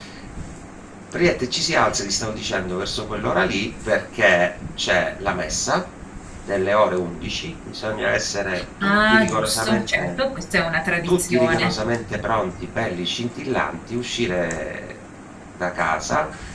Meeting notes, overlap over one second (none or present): present